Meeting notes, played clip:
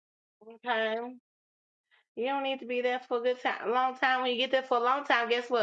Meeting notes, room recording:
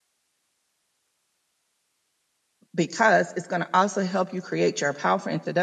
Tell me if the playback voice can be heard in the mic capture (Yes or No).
No